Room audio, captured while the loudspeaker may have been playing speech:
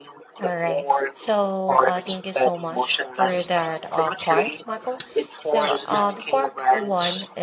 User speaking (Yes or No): Yes